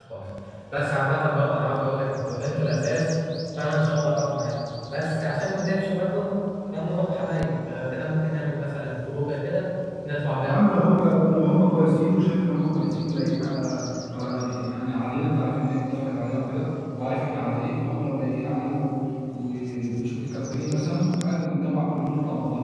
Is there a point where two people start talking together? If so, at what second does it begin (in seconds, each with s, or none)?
none